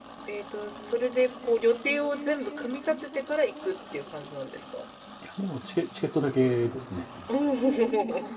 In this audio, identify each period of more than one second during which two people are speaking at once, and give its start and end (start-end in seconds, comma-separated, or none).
none